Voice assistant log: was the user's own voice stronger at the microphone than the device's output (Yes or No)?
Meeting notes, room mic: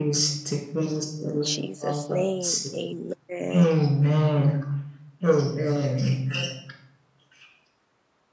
No